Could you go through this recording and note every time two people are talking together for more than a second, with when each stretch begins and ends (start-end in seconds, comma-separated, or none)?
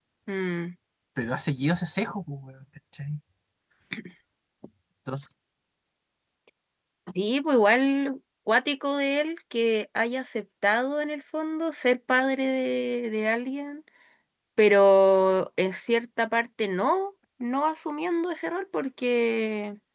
none